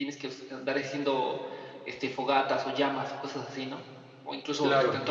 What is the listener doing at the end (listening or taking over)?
listening